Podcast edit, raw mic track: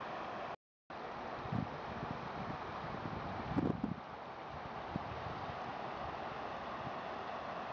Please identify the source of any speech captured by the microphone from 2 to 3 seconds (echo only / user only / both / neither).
neither